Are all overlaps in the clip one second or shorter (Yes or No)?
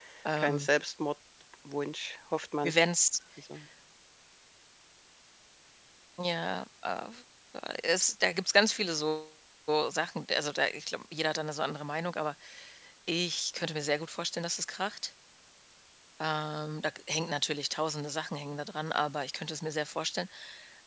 Yes